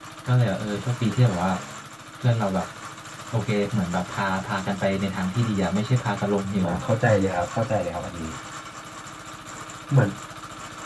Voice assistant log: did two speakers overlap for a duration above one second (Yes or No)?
No